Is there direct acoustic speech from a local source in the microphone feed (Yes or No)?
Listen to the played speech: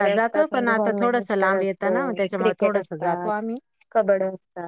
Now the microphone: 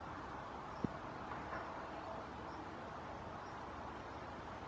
No